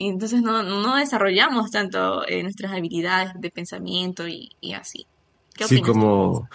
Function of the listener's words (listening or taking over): taking over